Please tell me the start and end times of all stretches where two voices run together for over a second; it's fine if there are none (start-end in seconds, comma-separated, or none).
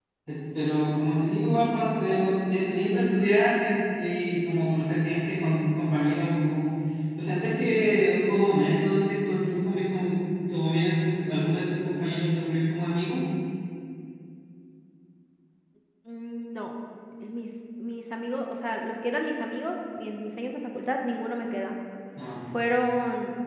none